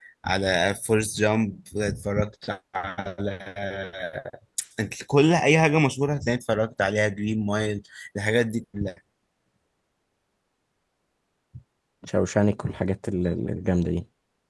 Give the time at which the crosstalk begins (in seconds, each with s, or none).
none